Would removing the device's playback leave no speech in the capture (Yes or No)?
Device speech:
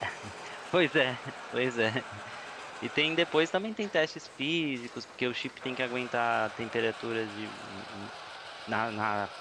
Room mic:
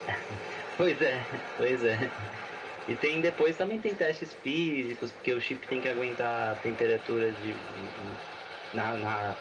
Yes